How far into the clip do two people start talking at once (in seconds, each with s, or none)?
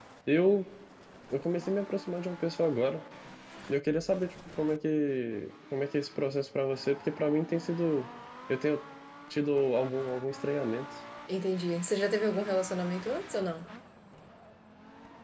none